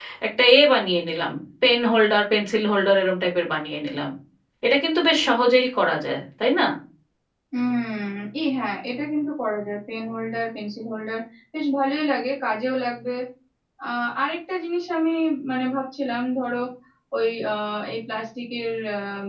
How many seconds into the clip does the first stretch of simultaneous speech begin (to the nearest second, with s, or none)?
none